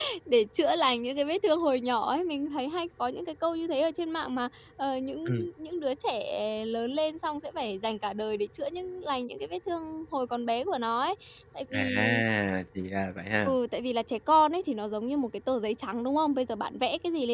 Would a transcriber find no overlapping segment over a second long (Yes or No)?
Yes